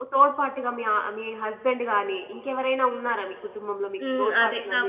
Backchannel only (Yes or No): No